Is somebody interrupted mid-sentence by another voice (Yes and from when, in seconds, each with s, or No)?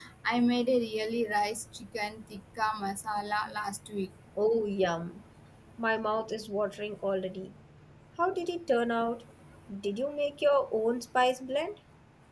No